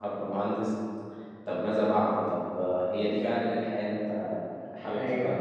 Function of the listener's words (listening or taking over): taking over